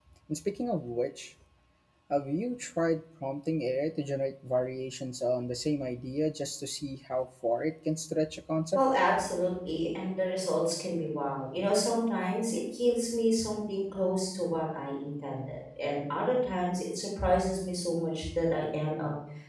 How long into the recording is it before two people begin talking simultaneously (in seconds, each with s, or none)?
none